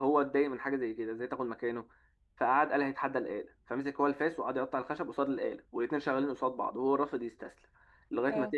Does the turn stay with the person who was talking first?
Yes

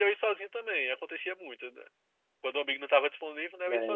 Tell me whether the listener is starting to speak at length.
Yes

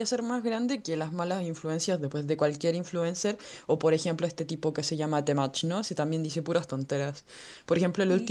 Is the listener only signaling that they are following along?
Yes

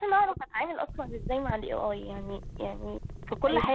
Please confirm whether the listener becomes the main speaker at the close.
No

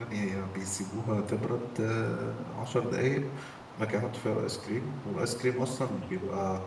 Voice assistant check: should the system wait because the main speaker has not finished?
Yes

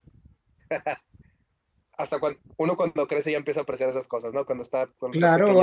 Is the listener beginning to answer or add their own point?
Yes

